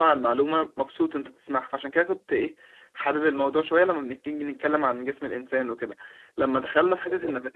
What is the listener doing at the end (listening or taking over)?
listening